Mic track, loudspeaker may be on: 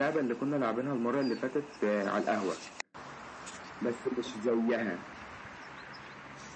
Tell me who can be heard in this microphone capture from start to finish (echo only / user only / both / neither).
echo only